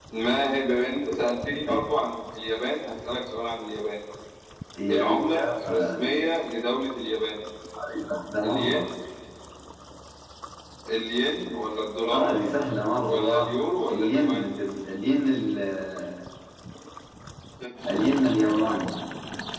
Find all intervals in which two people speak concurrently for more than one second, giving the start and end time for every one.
4.9-6.2, 13.0-14.4

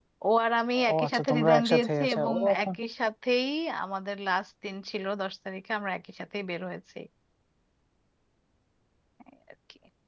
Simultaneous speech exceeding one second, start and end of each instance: 0.9-2.7

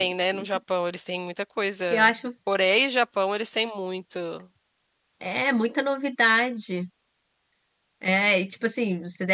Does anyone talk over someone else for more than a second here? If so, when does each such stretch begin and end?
none

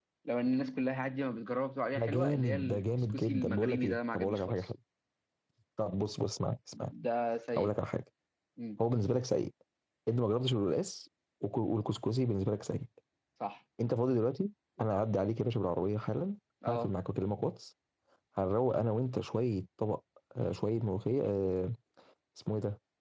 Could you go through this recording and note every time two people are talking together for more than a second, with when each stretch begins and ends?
1.9-4.6

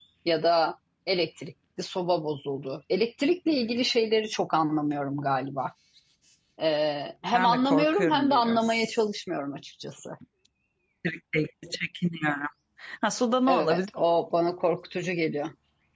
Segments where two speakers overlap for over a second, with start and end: 7.3-9.0

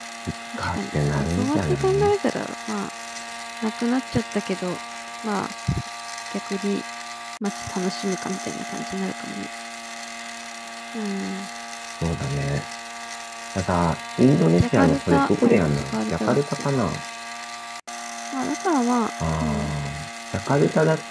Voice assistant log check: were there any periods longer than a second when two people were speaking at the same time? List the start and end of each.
0.6-2.1, 14.6-16.4

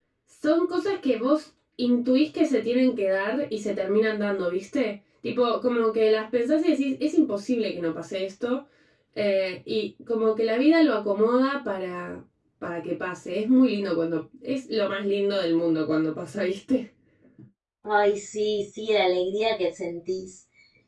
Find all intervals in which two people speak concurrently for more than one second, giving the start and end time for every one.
none

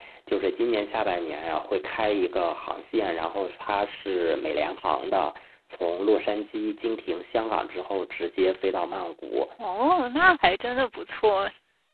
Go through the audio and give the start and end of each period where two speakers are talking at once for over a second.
none

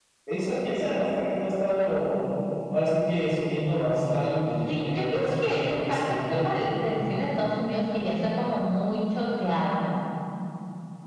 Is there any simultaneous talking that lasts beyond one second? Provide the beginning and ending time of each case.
4.7-6.5

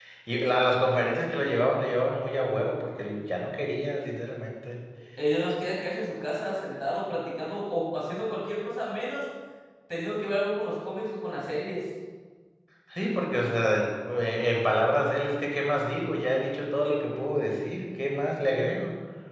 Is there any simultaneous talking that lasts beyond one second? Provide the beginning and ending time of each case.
none

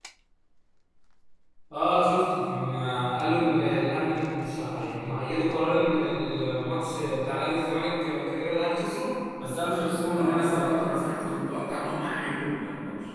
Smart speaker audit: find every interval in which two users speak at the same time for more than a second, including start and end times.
10.1-11.3

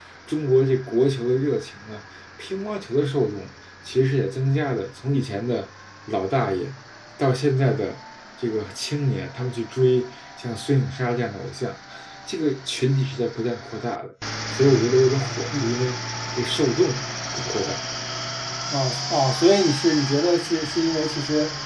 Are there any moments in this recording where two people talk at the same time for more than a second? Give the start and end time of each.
none

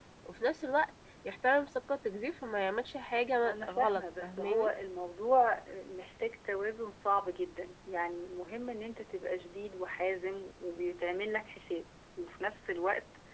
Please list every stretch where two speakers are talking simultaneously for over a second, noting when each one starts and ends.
3.4-4.7

